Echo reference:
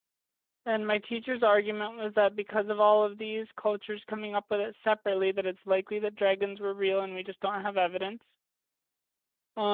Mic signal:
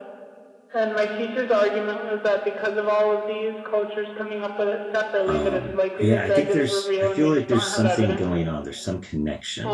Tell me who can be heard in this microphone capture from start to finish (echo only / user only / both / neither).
both